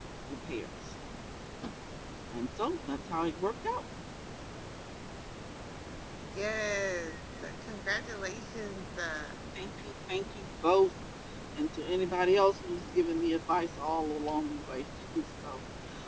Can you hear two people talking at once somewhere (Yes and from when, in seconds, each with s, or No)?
No